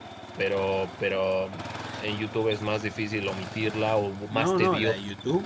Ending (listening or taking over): taking over